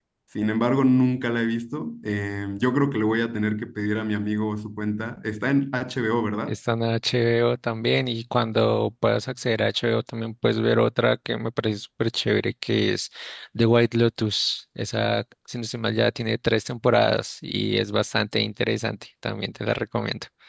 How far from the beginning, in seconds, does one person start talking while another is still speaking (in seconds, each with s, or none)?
none